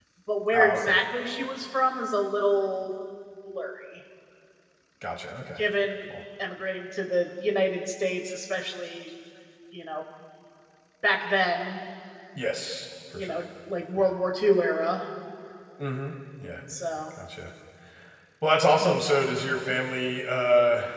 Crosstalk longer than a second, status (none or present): none